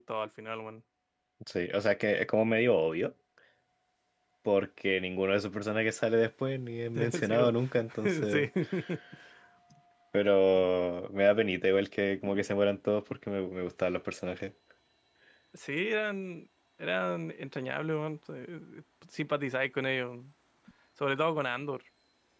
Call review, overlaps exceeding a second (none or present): present